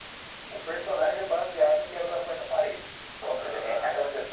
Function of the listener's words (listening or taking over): listening